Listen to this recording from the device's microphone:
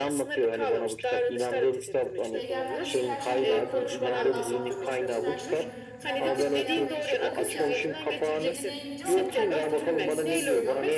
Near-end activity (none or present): present